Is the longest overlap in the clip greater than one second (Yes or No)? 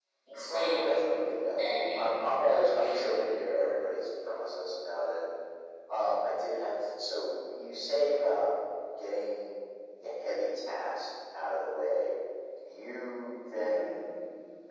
No